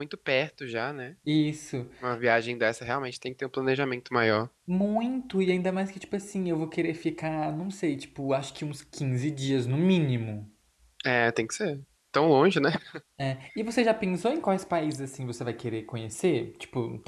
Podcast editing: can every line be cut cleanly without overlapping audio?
Yes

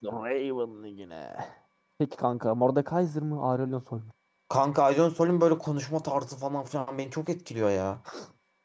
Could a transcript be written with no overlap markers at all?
Yes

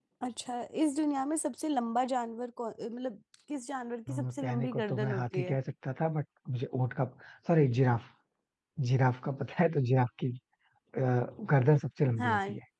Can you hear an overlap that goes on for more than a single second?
Yes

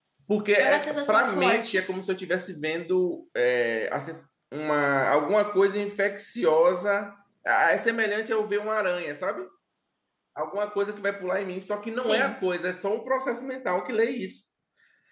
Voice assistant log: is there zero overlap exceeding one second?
No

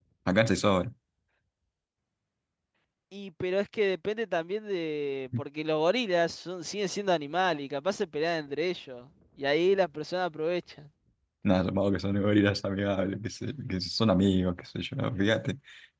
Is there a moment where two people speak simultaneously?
No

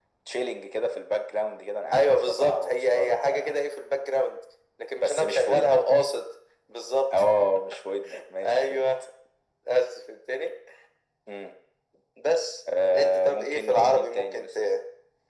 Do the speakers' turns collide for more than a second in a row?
Yes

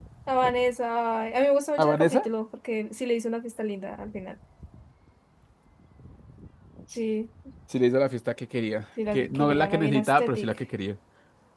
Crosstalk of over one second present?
Yes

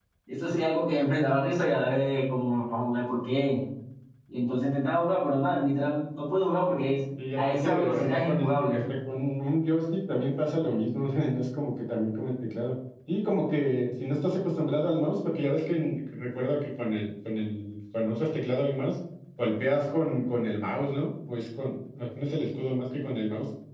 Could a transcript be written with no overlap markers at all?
No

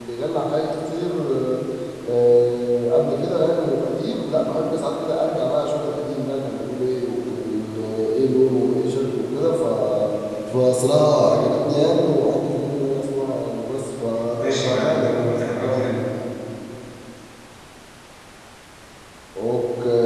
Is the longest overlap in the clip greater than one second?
Yes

